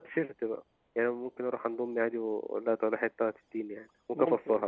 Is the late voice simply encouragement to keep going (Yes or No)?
No